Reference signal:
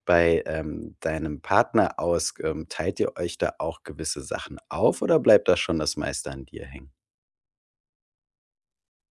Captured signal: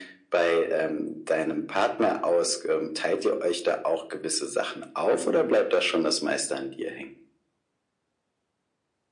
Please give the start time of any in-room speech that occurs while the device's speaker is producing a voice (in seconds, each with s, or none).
none